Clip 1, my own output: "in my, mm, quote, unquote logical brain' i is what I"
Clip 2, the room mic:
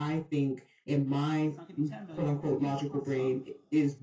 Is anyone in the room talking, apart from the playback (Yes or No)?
Yes